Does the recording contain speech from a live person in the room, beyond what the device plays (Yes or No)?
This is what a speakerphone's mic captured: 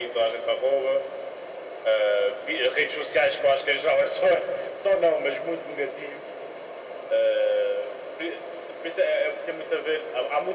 No